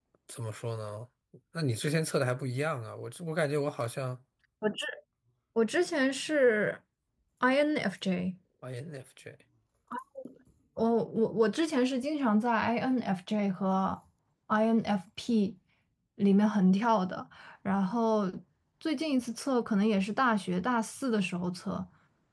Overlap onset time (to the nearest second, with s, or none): none